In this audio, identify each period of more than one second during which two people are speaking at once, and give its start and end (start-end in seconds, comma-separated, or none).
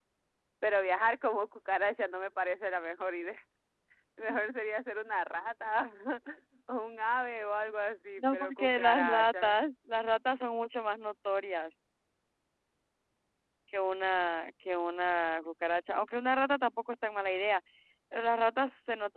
8.2-9.6